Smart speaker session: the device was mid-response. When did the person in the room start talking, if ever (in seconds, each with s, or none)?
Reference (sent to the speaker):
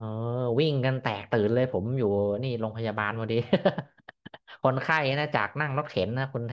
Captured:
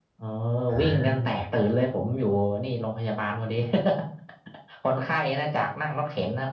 0.7 s